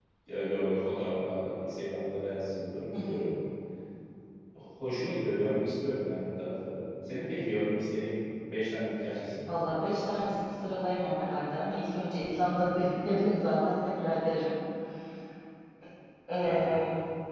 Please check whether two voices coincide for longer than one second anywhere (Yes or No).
No